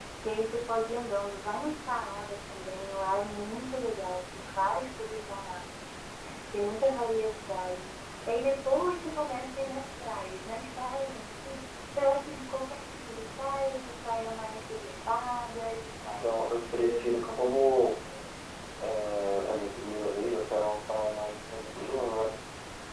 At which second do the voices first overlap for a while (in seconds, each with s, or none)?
16.2 s